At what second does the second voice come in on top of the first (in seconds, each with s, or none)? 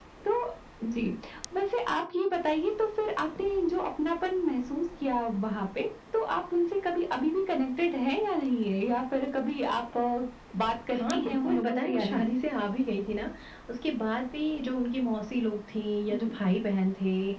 10.9 s